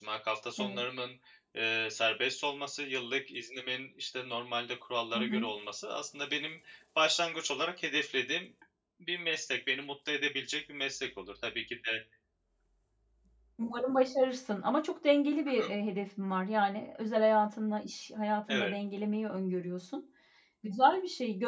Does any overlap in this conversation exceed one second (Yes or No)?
No